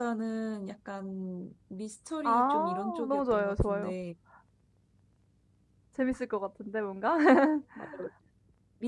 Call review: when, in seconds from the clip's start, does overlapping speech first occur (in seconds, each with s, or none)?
2.2 s